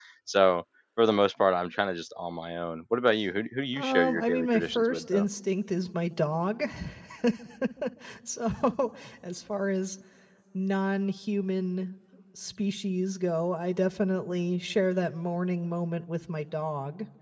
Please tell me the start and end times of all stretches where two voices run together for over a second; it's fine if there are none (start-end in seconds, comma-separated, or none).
3.7-5.3